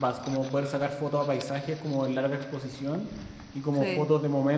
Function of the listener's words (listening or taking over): listening